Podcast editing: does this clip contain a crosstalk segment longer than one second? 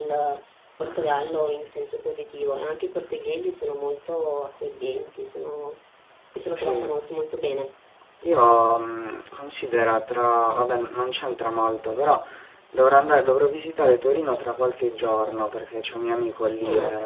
No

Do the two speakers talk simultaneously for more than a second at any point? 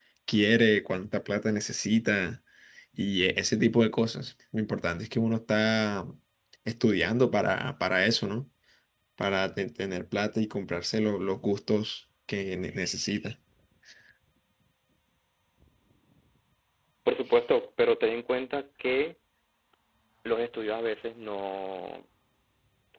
No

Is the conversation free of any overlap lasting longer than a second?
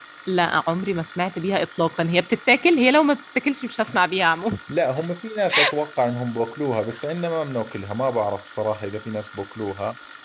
Yes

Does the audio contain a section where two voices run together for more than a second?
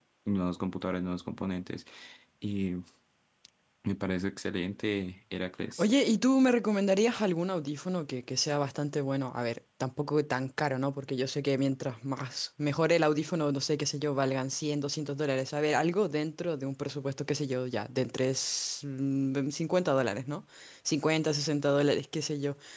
No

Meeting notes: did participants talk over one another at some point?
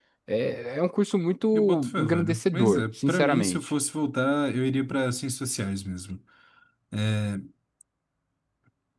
Yes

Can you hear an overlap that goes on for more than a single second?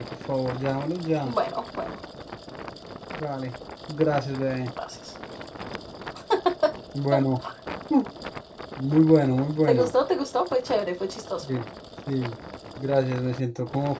No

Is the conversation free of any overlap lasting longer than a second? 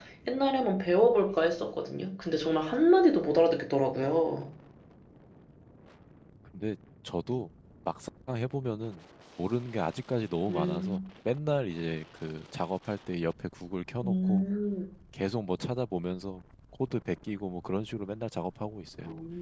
Yes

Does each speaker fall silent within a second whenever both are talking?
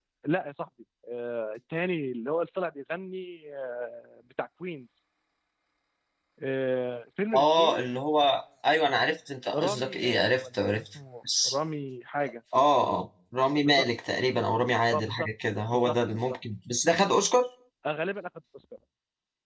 No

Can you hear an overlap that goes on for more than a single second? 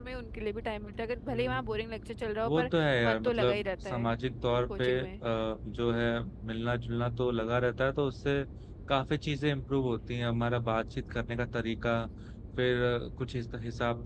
Yes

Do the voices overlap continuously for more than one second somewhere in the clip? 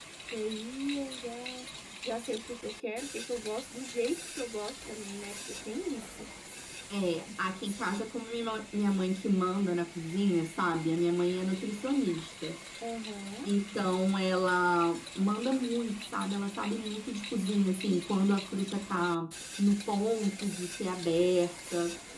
No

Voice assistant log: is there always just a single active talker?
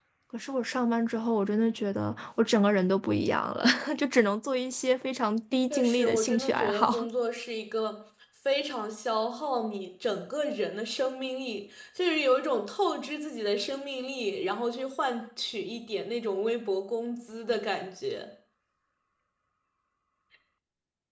No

